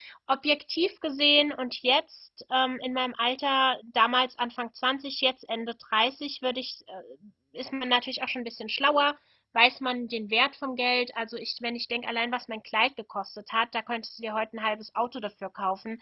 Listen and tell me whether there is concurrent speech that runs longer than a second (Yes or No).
No